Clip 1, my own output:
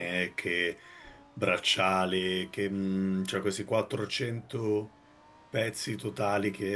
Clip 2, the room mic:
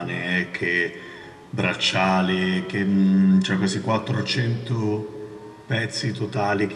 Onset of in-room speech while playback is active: none

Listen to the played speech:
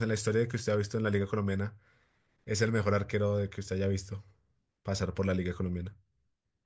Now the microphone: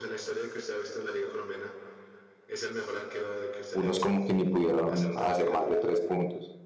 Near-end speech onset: 3.7 s

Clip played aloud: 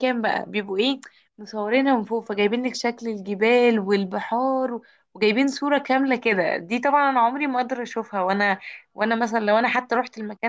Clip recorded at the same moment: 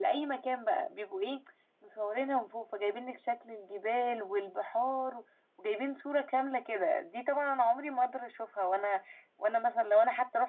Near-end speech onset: none

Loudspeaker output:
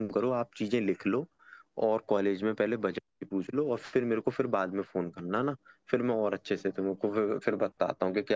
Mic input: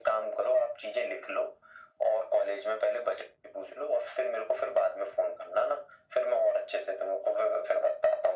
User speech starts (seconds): none

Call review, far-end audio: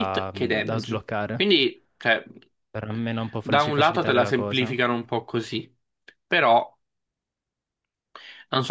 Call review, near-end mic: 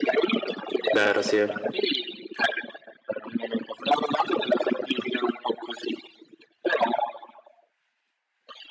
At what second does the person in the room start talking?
0.9 s

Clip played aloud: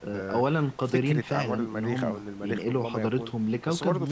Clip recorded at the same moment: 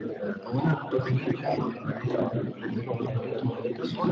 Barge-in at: none

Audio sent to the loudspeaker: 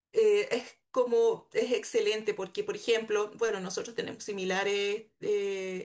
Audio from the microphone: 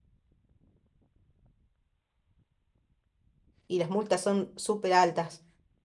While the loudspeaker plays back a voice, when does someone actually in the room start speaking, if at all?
3.7 s

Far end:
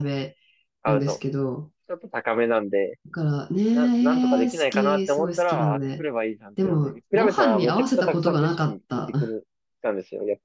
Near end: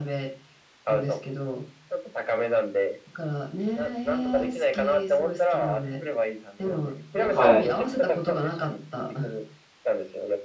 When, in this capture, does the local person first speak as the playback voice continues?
7.3 s

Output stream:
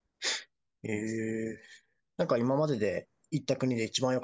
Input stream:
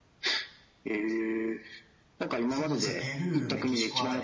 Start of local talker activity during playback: 2.5 s

